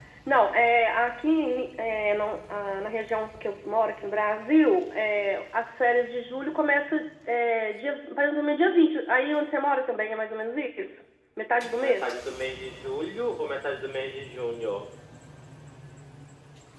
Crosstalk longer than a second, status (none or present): none